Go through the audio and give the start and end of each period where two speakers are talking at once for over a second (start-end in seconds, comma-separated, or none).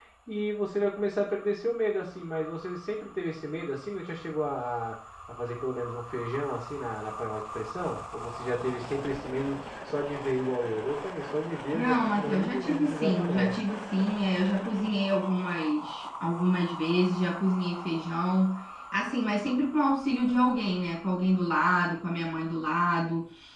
11.7-13.6